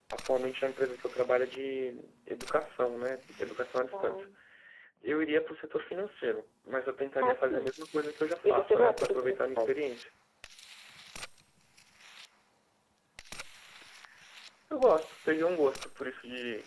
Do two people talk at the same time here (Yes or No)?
Yes